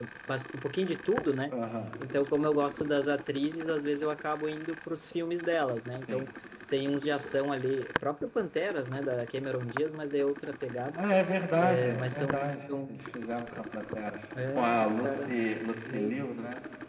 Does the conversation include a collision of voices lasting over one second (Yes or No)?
Yes